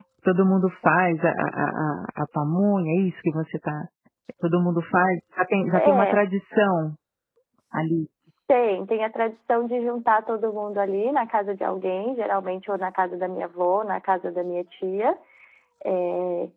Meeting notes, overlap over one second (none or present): none